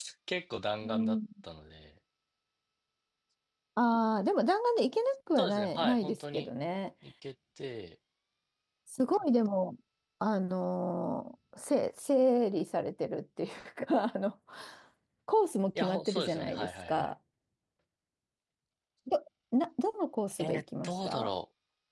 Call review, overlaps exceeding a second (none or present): present